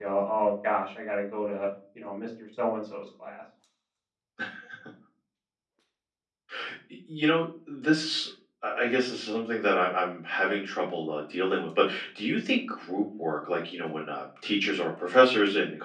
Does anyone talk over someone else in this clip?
No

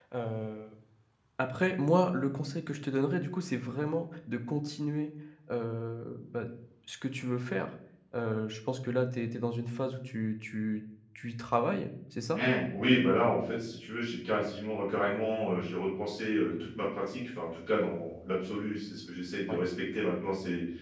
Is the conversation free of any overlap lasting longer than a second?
Yes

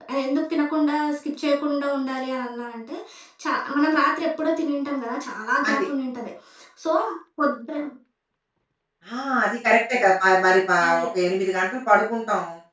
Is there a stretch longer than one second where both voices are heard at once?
No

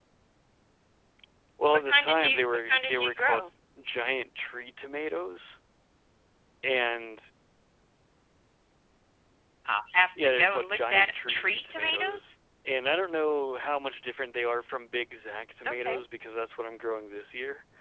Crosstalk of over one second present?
Yes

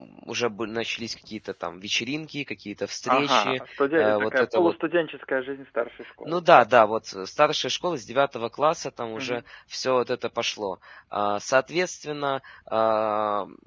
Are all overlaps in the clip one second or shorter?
No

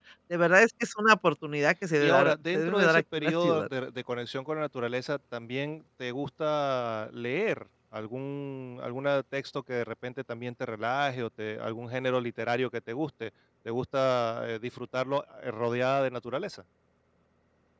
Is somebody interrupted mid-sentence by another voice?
Yes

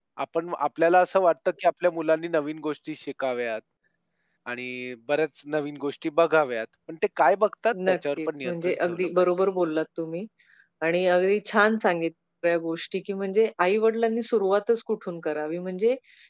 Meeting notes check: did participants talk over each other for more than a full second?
Yes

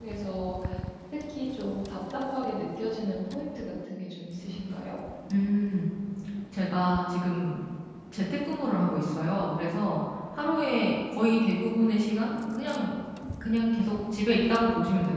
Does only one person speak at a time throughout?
Yes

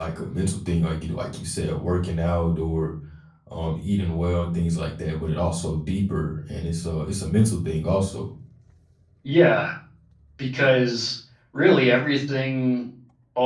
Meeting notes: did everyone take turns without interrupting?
Yes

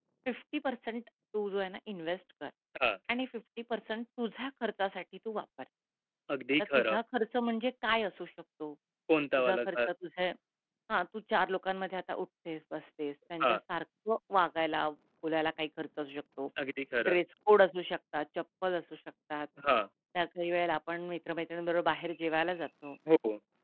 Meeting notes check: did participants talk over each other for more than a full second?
No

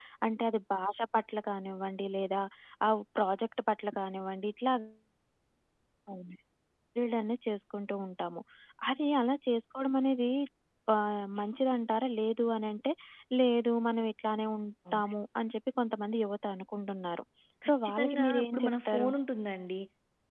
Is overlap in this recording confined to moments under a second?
No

